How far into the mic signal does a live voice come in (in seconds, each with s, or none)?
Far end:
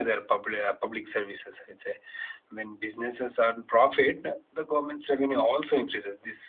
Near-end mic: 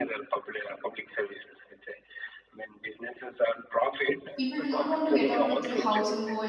4.4 s